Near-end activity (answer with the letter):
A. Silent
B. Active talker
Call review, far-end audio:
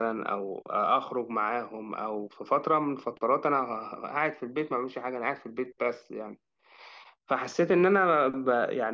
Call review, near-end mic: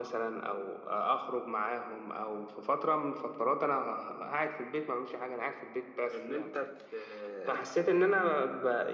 B